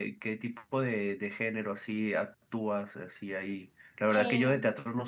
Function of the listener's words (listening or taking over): listening